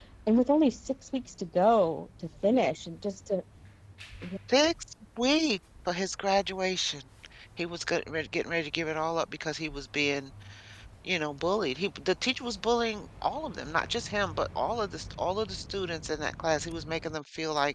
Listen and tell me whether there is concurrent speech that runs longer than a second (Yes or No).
No